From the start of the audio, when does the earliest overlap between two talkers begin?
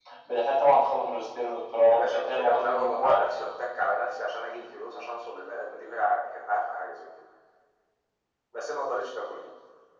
1.8 s

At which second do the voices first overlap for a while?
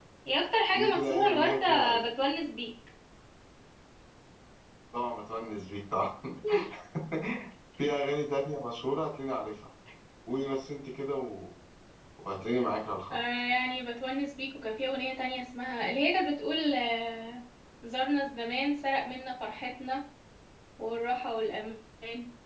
0.7 s

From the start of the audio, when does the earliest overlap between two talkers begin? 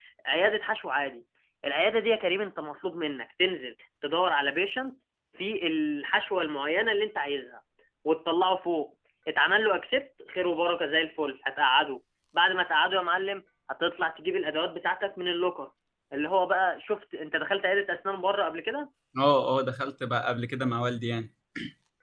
none

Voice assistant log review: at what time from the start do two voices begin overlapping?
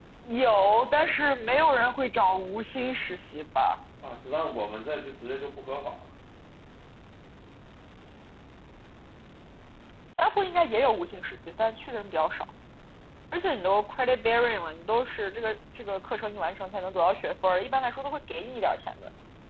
none

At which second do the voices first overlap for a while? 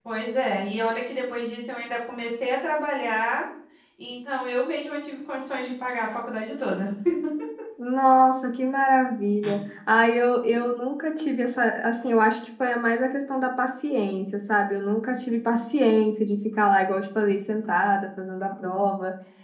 none

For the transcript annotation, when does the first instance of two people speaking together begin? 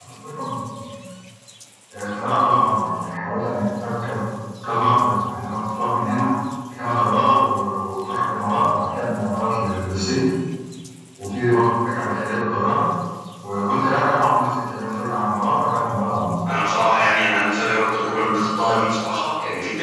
none

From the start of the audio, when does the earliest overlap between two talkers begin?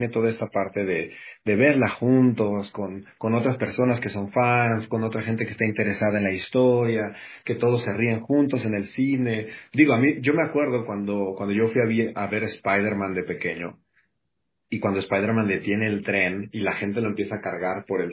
none

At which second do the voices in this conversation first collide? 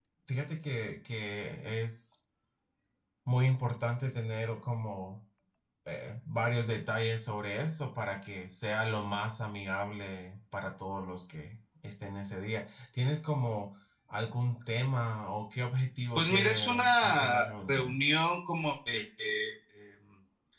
16.2 s

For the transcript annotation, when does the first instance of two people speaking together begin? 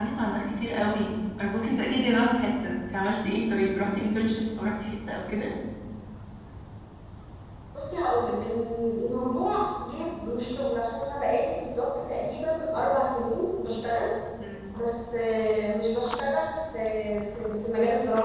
none

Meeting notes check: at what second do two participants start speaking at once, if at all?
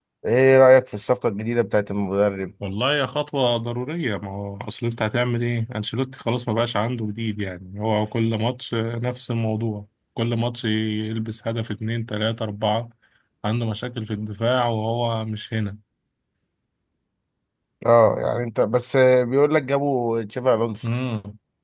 none

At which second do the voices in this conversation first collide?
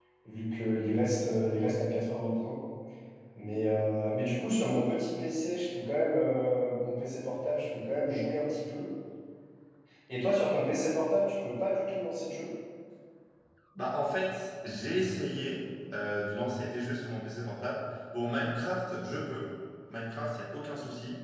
none

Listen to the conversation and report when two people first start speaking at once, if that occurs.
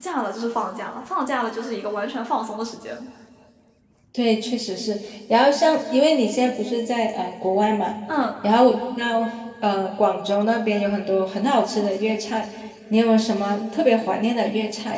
none

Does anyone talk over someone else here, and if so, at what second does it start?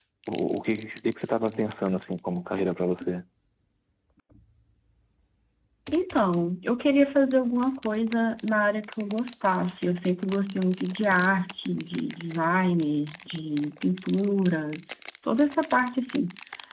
none

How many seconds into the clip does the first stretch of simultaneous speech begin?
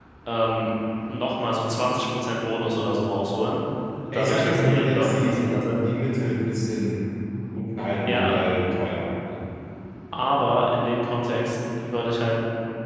4.1 s

